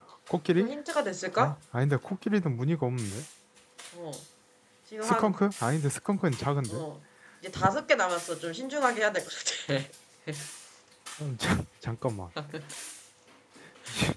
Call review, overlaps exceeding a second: none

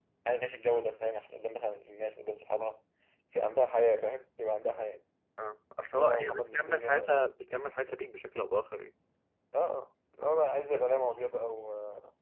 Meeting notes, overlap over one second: present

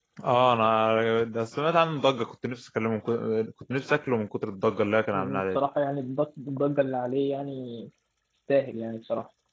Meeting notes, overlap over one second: none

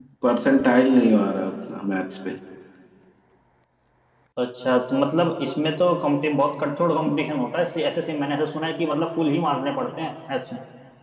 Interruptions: none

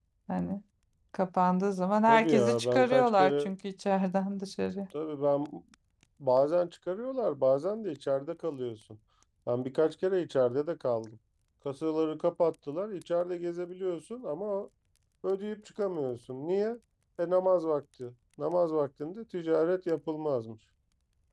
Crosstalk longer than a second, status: present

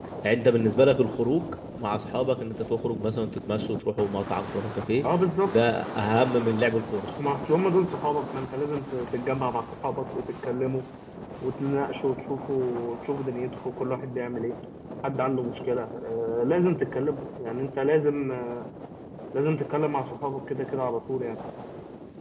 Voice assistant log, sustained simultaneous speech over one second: none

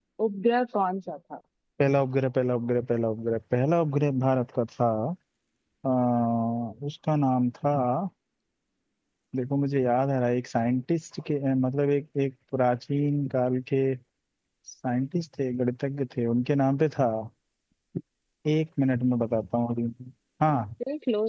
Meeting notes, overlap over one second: none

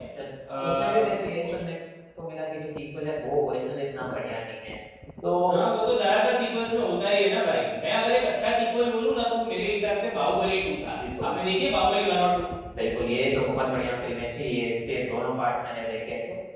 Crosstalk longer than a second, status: none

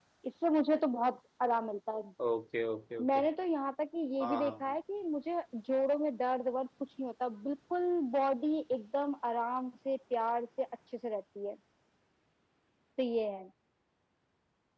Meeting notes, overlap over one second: none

